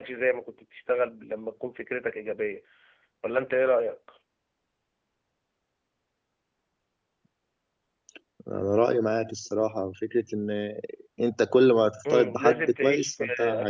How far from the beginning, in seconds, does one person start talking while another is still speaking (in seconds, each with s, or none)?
12.0 s